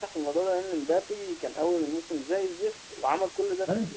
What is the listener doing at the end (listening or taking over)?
listening